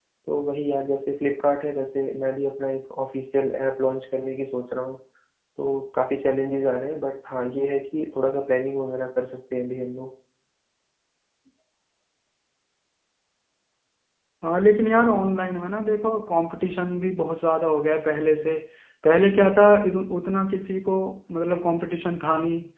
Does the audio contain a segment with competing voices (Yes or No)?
No